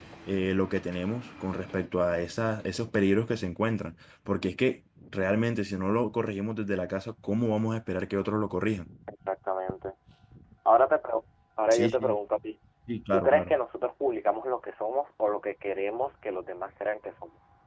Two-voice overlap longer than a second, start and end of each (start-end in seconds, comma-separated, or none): none